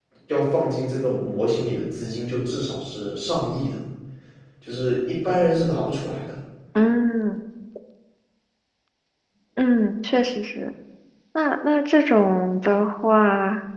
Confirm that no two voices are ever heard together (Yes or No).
Yes